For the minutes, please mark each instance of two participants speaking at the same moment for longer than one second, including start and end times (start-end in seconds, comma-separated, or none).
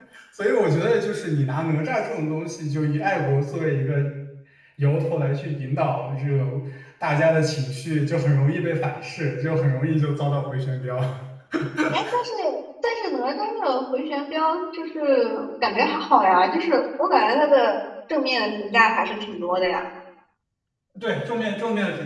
none